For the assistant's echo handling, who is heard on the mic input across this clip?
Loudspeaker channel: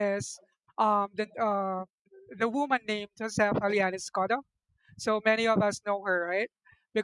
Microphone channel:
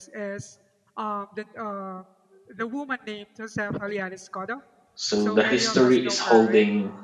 both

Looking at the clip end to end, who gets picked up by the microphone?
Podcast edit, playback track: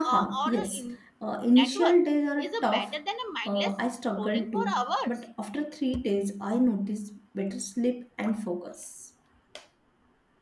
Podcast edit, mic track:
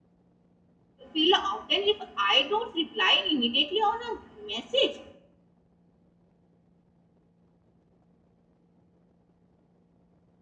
user only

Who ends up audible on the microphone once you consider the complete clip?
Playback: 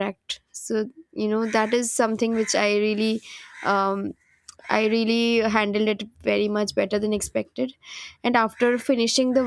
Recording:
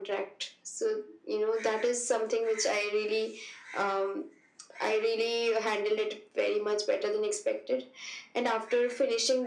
echo only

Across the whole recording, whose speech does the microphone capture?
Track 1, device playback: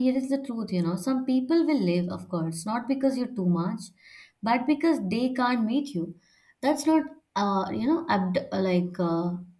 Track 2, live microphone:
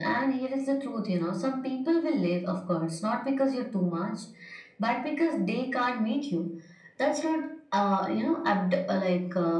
echo only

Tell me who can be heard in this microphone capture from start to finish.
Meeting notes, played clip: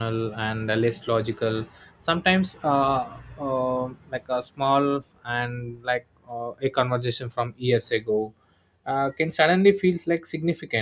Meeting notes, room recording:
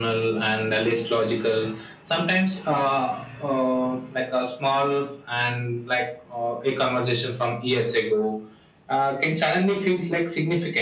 echo only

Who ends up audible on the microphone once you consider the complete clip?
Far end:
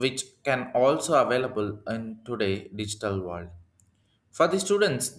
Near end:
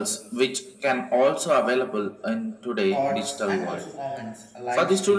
both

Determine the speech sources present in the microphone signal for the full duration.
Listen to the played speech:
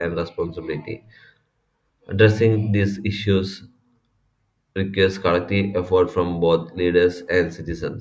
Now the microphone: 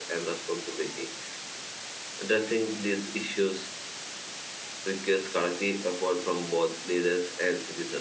echo only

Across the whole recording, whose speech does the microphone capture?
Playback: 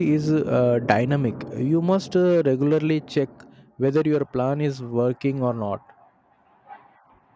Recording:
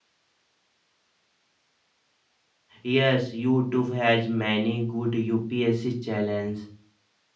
user only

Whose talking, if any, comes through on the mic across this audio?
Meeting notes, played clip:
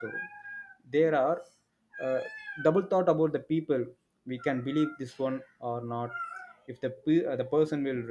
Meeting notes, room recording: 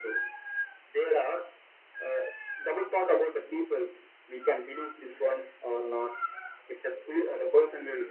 echo only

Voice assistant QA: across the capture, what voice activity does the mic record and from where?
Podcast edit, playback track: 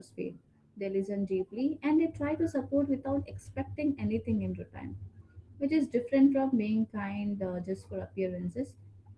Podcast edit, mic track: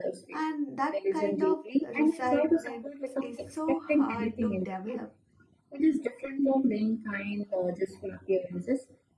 both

